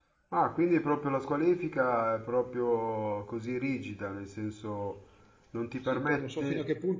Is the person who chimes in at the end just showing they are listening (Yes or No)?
No